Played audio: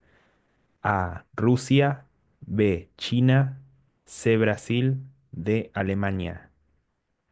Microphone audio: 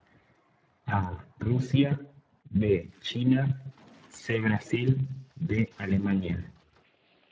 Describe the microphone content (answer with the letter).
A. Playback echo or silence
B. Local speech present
A